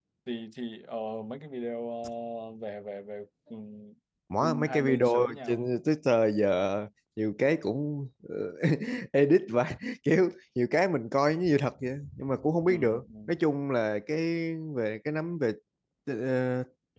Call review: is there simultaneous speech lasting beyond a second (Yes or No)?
Yes